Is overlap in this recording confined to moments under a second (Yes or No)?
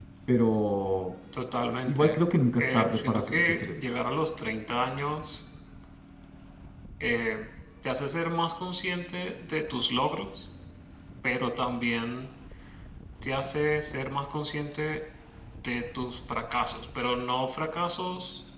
No